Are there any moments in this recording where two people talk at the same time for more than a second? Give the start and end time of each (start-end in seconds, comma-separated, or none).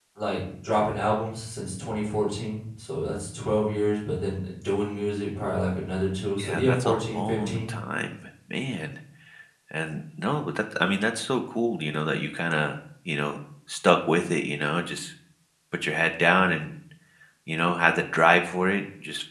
6.4-7.6